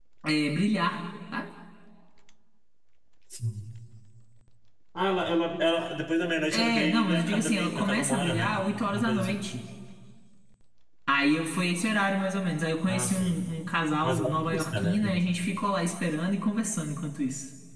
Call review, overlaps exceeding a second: present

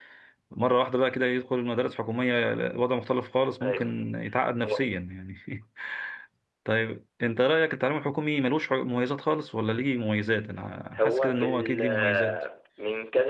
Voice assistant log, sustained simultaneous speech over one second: present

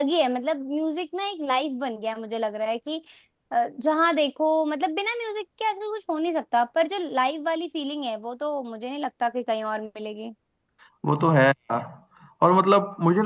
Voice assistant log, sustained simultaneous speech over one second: none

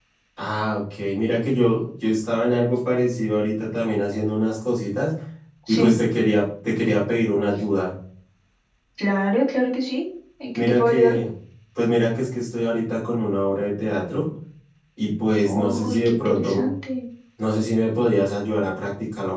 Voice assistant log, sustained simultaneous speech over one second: present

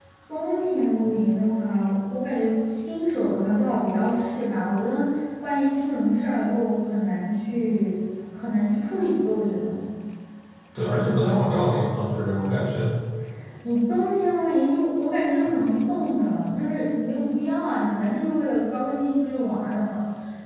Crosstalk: none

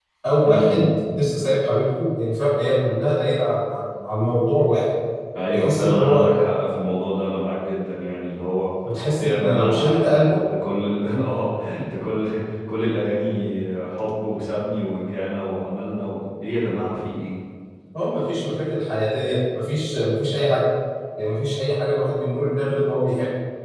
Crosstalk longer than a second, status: present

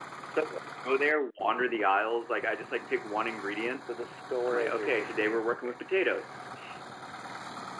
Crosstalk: present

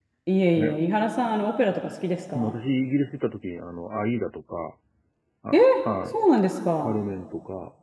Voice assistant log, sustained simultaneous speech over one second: none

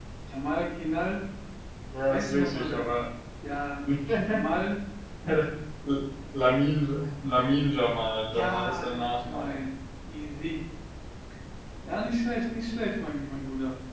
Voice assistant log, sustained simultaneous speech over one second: present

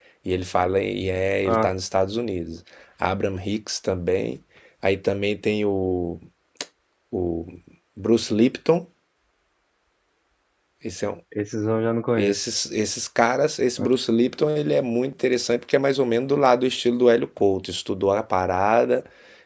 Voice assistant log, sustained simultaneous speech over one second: none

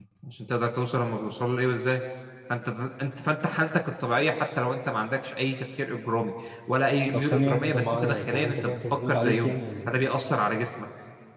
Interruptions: present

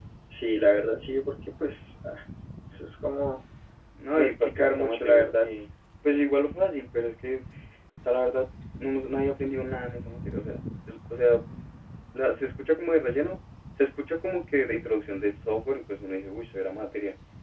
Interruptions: present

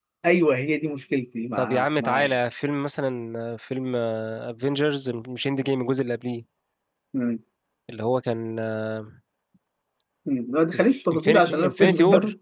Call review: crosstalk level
present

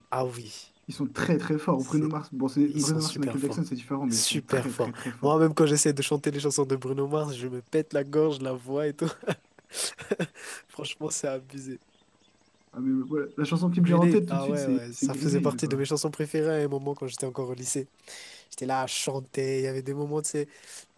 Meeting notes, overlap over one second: present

